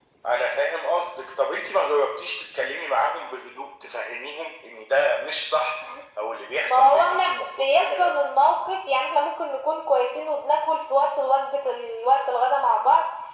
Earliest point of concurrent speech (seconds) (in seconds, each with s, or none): 6.6 s